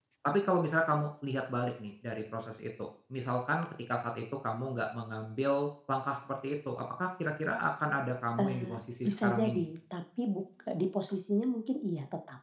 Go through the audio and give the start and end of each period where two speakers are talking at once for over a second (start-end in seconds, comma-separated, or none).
8.4-9.6